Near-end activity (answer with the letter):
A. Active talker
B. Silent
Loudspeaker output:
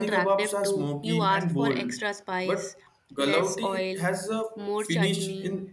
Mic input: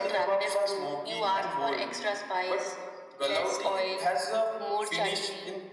B